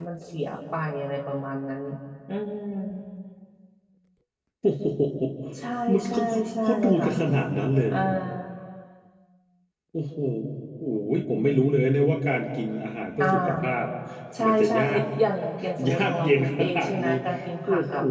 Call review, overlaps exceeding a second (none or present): present